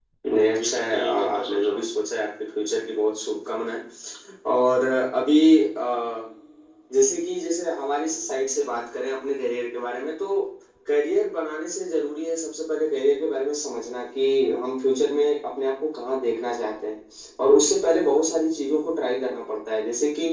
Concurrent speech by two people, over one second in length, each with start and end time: 0.6-1.9

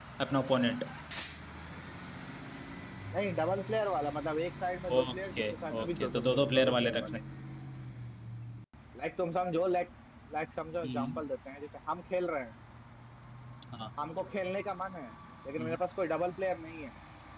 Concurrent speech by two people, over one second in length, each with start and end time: 5.0-7.2

